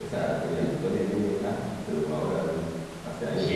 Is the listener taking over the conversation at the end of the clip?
Yes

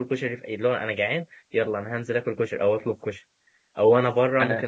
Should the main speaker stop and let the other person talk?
No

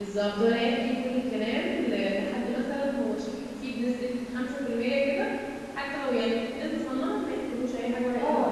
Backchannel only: No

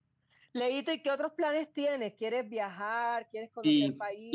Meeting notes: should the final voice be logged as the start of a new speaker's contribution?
Yes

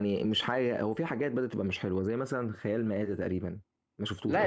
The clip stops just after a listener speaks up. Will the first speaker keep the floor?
No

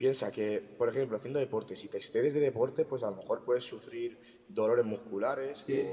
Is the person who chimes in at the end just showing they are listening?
Yes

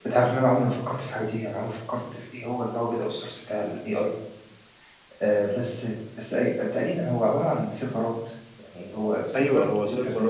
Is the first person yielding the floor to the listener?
Yes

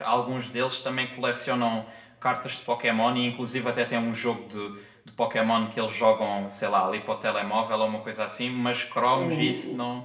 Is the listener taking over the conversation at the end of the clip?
No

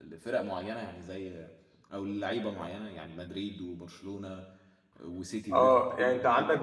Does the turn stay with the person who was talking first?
No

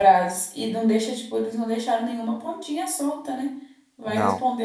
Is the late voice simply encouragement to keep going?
Yes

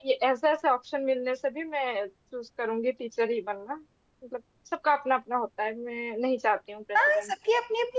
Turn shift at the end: Yes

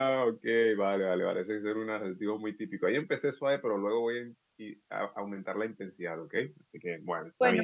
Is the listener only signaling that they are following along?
No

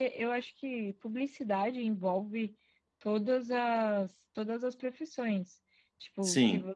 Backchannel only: Yes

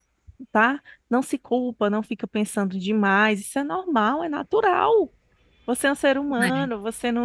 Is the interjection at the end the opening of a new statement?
No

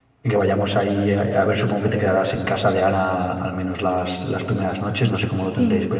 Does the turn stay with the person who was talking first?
No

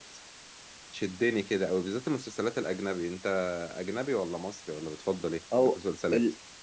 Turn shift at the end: Yes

